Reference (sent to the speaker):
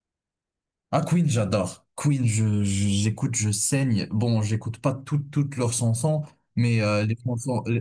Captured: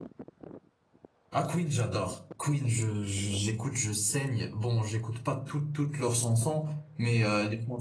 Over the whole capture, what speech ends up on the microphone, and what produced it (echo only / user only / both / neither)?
echo only